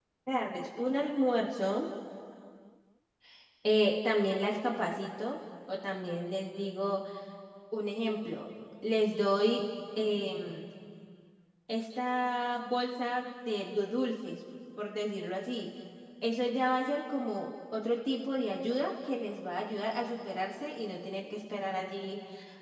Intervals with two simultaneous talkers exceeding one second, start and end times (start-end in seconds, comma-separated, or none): none